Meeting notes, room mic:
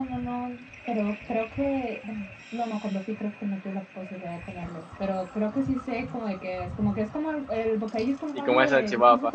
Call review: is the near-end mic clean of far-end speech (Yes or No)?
No